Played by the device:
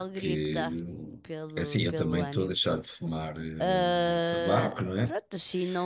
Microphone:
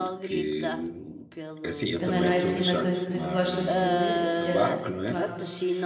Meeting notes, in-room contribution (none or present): present